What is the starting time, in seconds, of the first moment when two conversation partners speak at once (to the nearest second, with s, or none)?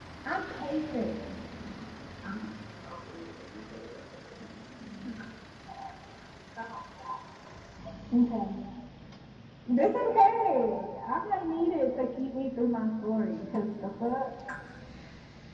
none